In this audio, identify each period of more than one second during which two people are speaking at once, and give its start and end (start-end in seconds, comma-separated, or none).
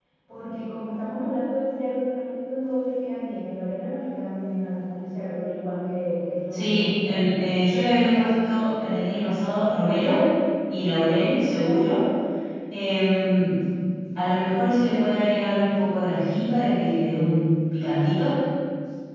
none